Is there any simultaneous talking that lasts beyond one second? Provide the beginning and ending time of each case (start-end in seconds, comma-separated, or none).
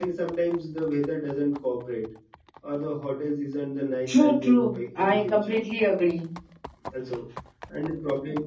4.1-5.6